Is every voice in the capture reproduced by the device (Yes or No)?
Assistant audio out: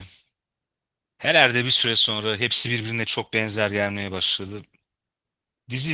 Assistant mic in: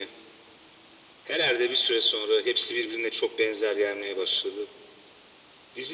Yes